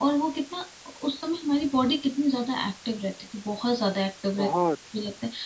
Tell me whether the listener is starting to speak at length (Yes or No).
No